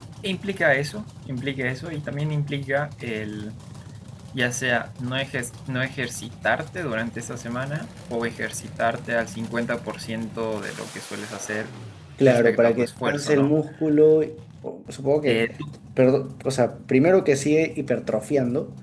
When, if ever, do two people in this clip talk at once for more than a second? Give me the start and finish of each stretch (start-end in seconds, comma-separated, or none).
12.2-13.6